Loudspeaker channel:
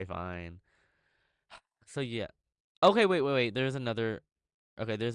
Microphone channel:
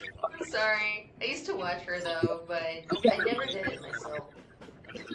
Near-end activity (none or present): present